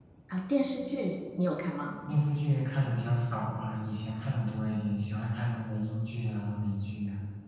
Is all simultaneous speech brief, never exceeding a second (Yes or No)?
Yes